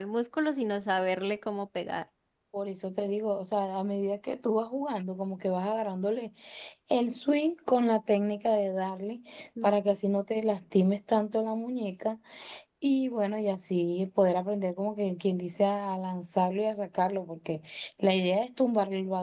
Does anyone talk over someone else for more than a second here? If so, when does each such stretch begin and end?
none

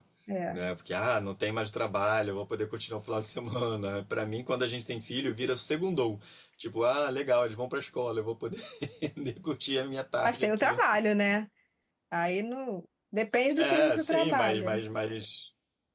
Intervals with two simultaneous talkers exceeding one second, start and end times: 13.6-14.8

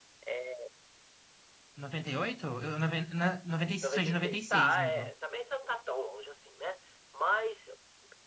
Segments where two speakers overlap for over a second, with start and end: 3.8-5.0

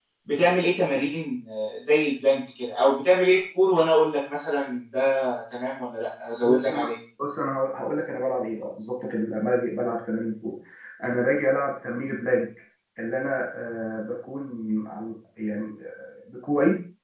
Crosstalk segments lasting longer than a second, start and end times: none

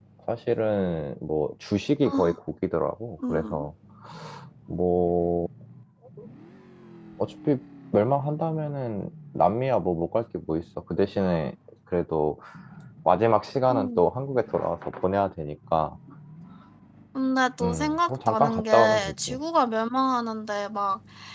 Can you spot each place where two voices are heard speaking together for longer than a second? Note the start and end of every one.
17.6-19.4

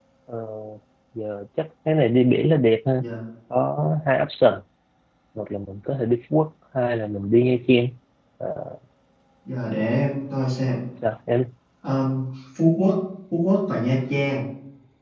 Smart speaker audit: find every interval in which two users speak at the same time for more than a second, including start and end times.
none

